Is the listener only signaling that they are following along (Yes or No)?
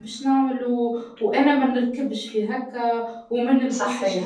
Yes